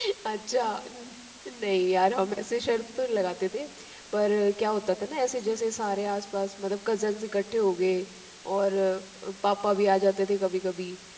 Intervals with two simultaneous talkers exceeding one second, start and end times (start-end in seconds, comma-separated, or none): none